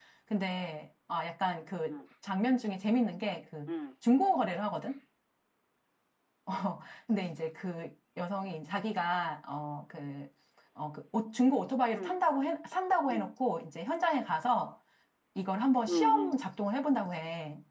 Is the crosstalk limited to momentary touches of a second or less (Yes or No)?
Yes